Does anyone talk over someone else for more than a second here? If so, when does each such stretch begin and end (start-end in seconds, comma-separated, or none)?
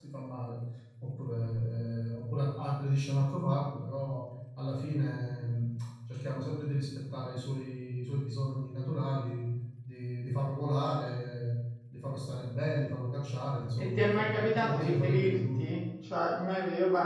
13.8-15.6